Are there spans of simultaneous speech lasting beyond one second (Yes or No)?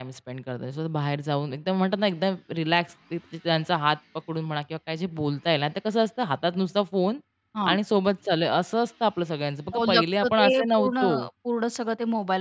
Yes